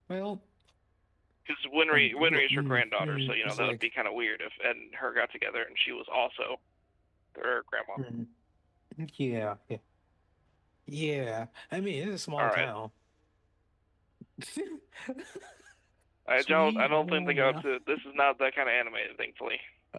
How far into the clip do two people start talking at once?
1.9 s

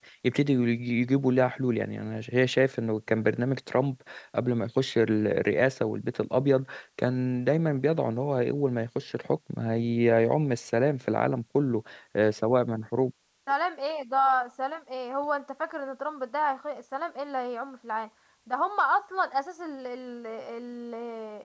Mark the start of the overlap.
none

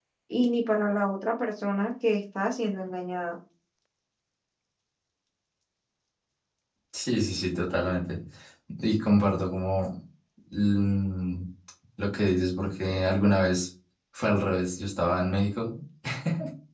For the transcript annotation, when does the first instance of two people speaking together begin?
none

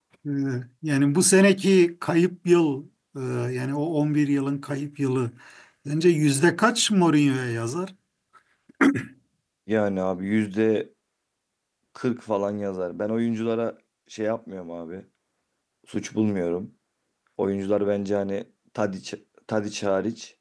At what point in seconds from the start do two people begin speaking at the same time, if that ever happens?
none

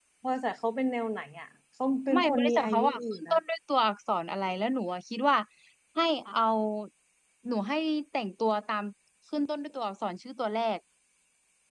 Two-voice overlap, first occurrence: 2.1 s

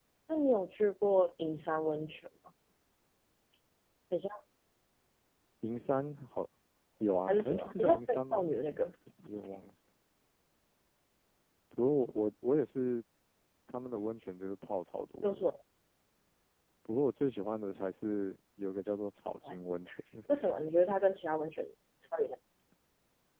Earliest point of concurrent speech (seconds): 7.3 s

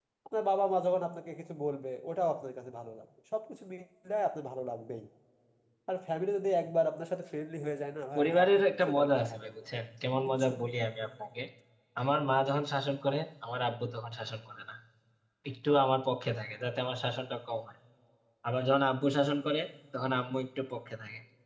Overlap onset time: 8.2 s

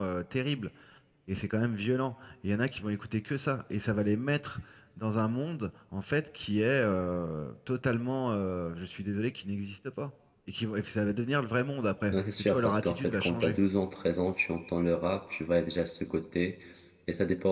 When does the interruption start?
12.1 s

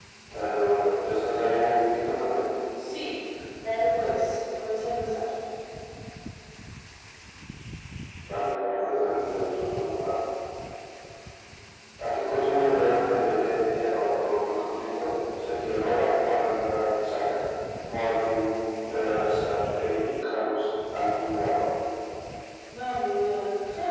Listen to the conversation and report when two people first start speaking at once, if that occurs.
none

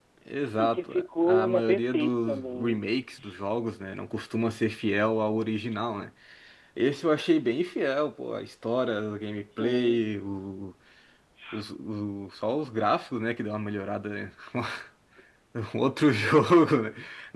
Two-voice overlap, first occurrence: 0.6 s

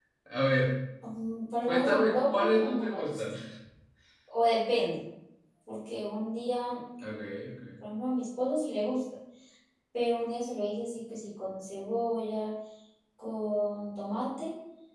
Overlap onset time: 1.7 s

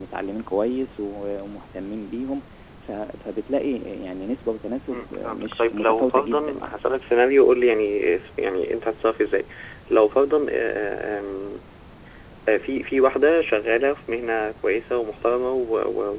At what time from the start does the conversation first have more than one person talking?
4.9 s

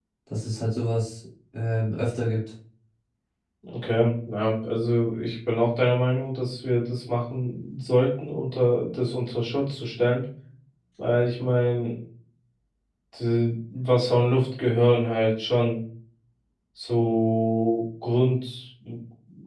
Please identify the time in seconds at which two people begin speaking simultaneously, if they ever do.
none

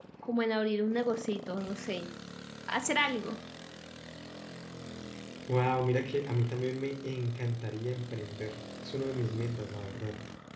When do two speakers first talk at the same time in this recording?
none

